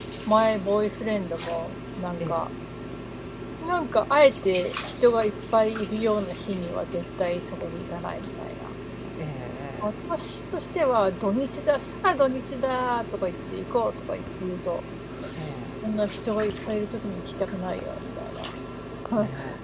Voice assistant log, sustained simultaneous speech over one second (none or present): none